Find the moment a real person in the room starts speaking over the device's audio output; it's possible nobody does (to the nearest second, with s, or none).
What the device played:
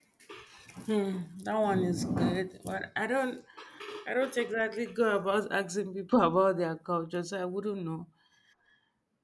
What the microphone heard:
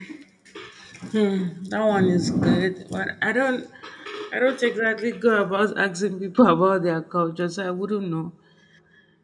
none